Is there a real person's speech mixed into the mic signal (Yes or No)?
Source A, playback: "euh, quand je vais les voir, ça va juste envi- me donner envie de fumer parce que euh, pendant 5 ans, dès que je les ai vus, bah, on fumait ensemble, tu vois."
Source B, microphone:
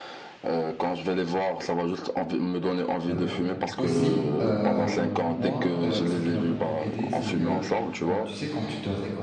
Yes